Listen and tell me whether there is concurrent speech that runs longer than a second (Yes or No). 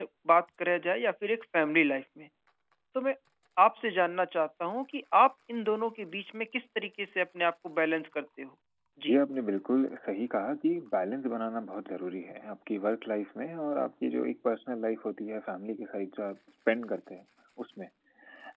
No